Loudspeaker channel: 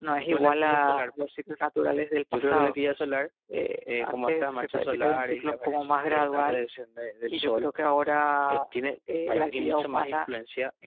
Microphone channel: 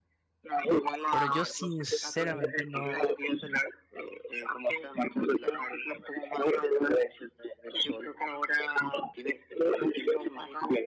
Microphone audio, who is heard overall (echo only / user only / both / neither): both